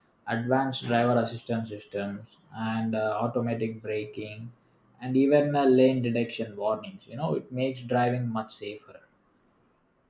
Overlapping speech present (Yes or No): No